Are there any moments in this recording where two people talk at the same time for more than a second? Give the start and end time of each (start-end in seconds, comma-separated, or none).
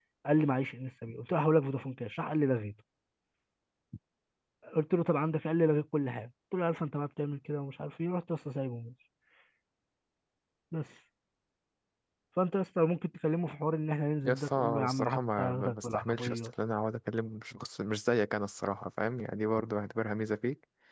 14.2-16.5